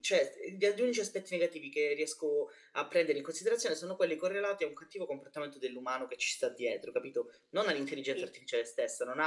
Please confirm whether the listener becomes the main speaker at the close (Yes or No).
No